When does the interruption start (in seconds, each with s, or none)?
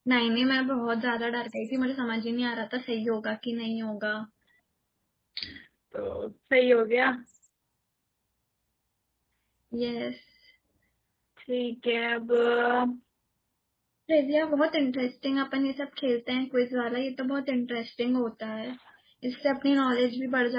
none